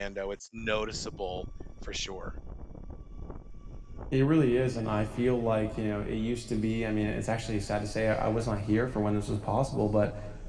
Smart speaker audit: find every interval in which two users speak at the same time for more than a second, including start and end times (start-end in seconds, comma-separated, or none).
none